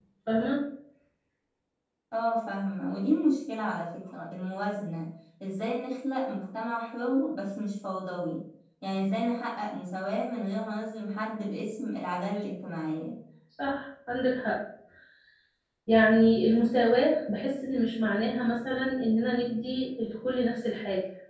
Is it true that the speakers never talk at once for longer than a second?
Yes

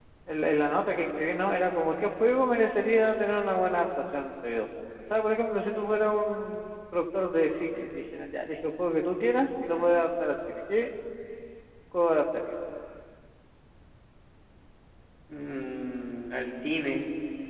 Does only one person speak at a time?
Yes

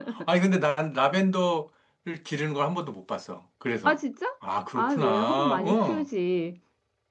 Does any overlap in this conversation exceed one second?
Yes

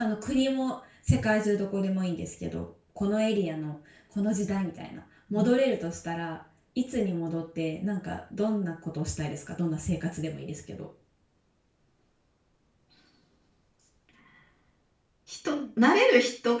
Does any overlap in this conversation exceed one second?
No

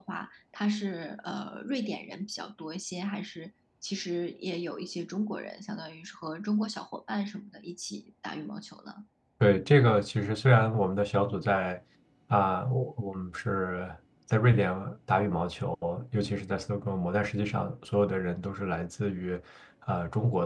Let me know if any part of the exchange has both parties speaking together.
No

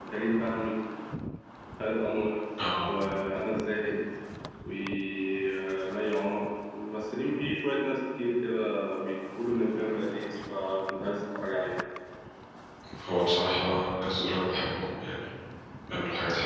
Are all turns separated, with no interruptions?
Yes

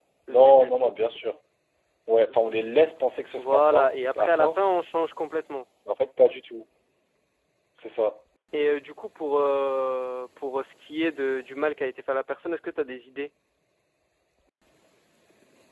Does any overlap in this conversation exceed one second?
Yes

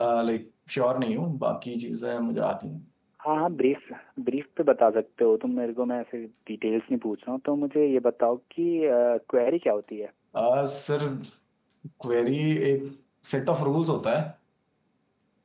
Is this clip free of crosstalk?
Yes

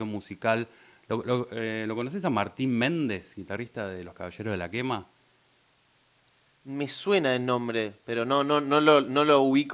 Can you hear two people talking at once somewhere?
No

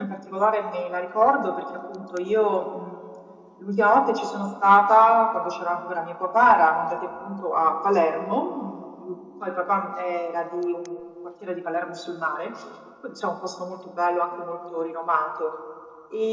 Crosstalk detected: No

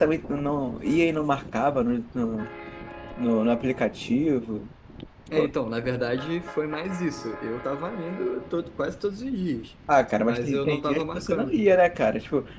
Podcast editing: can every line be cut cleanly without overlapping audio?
No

